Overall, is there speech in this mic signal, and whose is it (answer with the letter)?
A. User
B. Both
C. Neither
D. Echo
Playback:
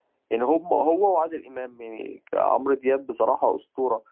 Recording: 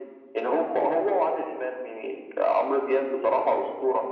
D